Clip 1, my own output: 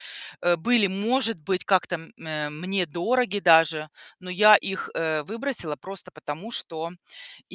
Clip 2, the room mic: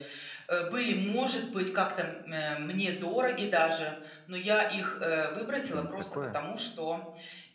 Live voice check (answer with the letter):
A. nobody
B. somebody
B